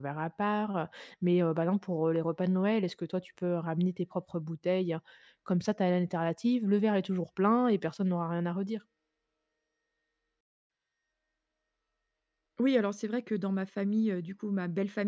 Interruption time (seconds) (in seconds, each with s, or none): none